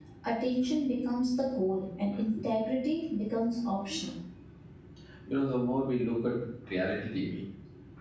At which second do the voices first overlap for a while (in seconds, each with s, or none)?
none